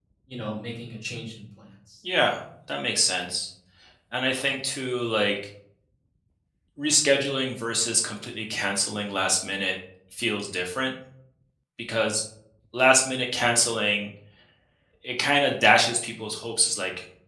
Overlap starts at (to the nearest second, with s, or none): none